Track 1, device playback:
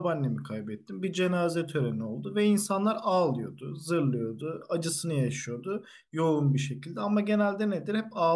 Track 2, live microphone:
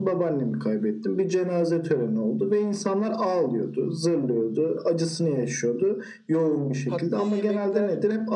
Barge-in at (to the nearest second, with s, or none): 7 s